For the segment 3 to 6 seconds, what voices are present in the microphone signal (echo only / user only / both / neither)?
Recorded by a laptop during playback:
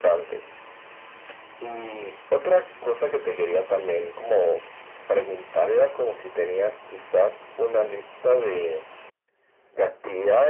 echo only